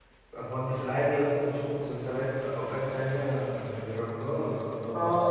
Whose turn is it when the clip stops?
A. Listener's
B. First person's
A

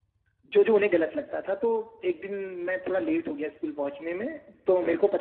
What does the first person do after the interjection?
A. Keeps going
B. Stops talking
A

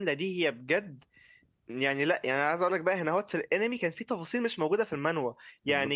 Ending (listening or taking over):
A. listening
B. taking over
A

